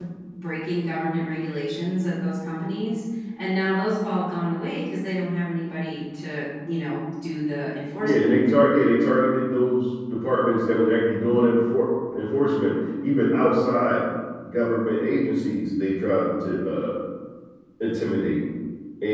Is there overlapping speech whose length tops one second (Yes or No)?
No